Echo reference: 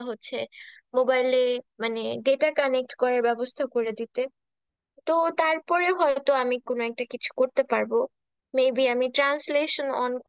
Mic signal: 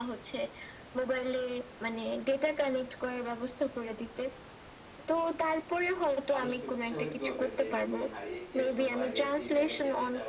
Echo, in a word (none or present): present